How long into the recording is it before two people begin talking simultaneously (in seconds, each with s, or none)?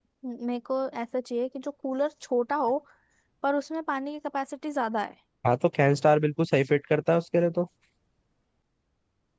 none